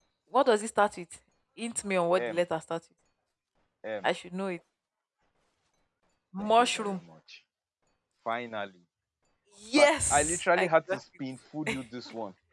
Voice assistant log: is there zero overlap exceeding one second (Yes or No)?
No